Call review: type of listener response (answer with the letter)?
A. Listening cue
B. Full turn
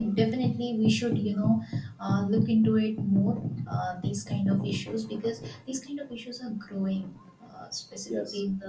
A